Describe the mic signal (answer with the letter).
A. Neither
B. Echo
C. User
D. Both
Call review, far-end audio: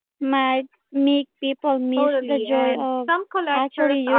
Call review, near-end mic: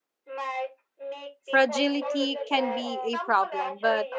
D